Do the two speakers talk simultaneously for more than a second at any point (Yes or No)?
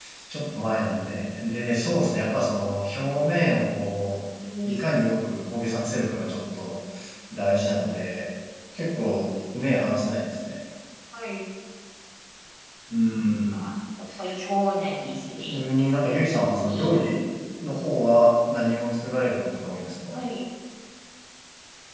No